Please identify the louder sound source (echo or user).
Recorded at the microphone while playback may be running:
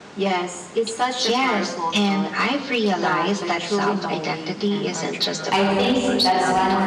user